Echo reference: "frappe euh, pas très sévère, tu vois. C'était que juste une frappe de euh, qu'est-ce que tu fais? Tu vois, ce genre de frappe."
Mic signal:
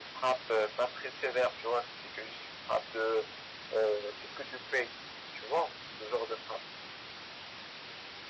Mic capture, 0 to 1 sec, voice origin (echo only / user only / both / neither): echo only